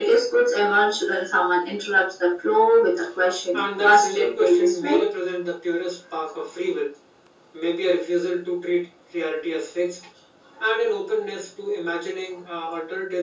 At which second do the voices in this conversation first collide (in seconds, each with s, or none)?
3.5 s